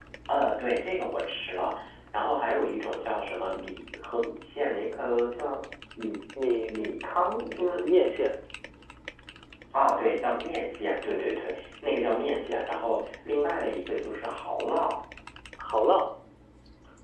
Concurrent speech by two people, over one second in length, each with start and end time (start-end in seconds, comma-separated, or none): none